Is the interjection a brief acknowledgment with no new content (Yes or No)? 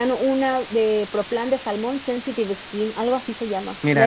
No